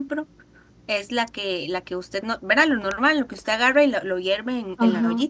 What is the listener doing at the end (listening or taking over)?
taking over